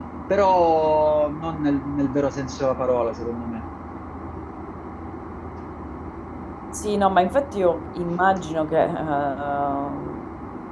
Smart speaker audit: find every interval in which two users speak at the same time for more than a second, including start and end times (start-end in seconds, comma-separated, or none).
none